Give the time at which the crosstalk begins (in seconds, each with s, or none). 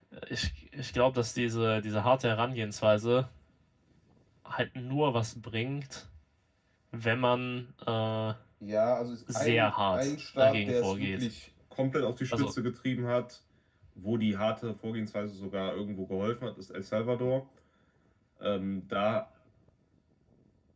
9.3 s